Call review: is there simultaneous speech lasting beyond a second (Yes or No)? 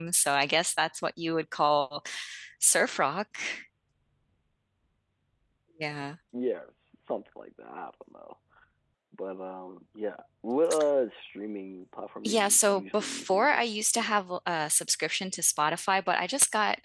Yes